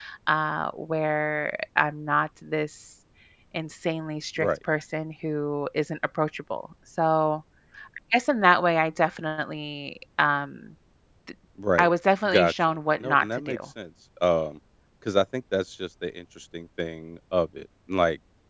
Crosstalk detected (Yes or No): Yes